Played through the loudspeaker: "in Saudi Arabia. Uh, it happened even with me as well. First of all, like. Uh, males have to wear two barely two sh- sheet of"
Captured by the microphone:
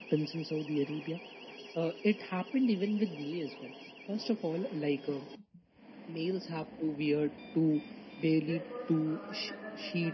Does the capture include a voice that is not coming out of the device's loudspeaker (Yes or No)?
Yes